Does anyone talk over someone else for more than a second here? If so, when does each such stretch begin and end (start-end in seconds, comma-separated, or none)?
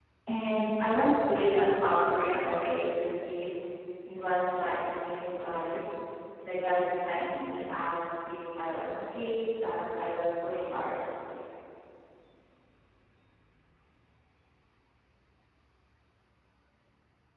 none